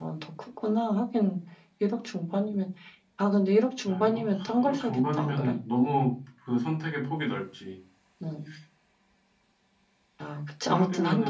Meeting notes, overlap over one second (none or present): present